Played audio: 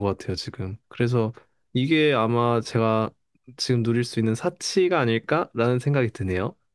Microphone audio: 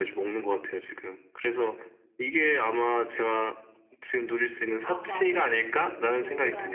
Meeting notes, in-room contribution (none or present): present